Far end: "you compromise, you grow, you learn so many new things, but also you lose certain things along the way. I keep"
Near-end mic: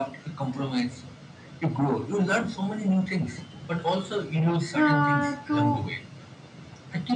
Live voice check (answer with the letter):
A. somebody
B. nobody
A